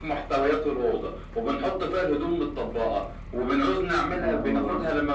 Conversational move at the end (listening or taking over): listening